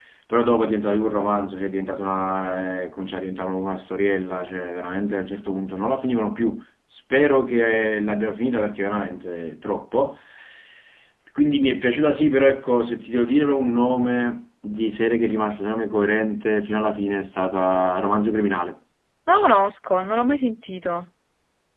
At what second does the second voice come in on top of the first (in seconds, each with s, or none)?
none